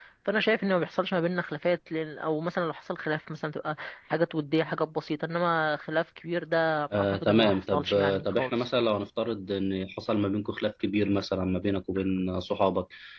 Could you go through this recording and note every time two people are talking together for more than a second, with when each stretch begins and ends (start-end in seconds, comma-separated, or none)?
7.0-8.7